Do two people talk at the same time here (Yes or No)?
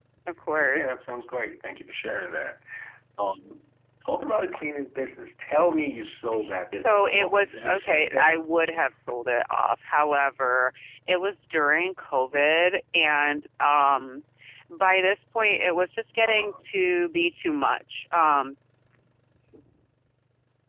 Yes